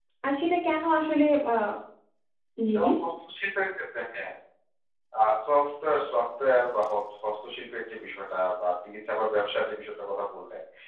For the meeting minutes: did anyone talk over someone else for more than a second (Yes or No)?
No